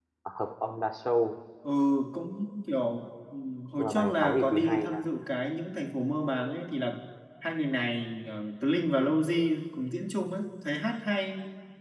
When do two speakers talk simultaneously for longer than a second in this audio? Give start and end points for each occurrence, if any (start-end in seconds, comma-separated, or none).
3.8-5.0